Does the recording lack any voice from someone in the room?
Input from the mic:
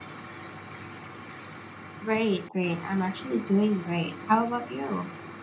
No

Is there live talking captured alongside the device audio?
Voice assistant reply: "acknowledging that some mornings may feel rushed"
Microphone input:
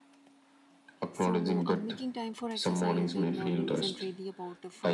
Yes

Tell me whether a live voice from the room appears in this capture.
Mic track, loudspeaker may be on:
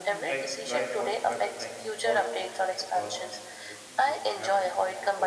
Yes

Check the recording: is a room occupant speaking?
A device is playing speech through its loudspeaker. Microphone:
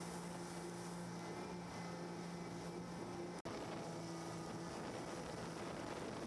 No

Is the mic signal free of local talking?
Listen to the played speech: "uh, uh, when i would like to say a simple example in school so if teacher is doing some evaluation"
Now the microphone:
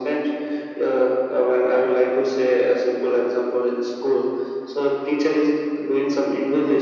Yes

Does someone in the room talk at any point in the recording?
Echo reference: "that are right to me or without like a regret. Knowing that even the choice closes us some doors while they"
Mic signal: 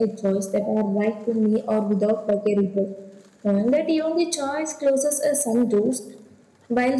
No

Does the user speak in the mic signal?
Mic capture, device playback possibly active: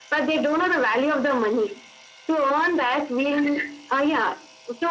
No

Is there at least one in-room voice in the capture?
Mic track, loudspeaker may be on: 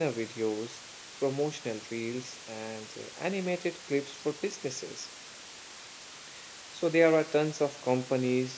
Yes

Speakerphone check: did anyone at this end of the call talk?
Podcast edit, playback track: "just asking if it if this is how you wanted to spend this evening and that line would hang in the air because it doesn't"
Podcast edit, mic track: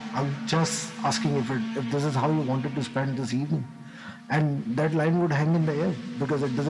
No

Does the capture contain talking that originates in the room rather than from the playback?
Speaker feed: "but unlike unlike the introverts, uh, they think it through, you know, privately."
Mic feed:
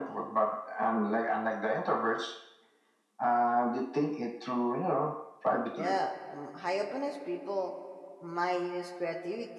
Yes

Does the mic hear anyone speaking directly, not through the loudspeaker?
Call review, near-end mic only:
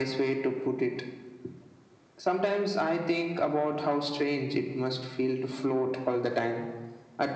No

